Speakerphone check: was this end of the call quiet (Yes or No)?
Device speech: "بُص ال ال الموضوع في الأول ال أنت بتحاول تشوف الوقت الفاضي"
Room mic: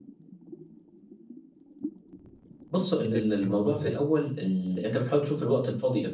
No